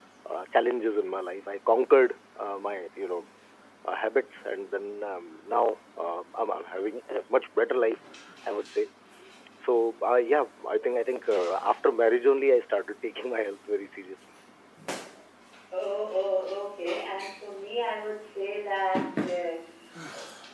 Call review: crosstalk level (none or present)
none